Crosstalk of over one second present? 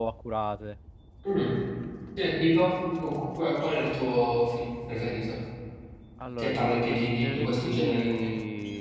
Yes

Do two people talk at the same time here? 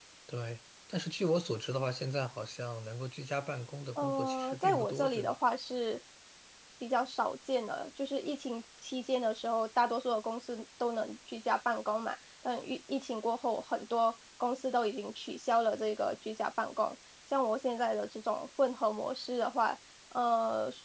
Yes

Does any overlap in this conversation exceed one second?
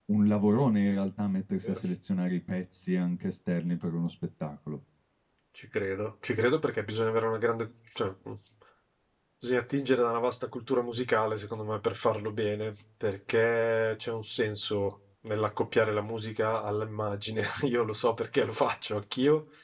No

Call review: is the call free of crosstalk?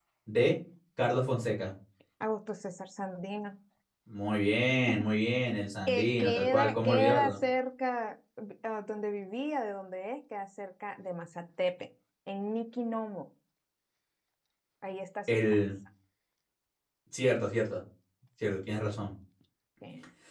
No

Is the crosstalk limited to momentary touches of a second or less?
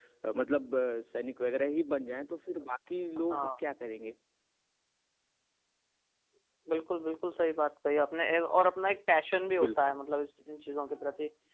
Yes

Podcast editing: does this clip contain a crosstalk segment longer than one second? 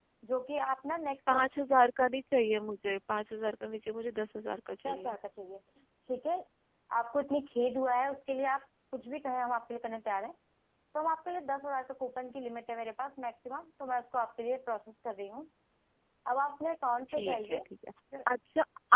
No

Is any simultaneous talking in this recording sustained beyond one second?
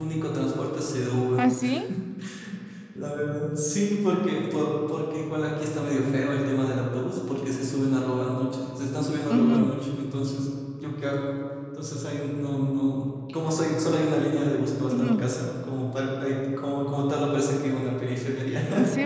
No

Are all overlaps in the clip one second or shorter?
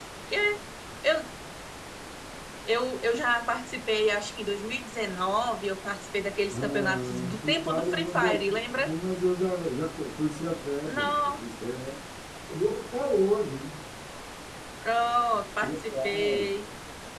No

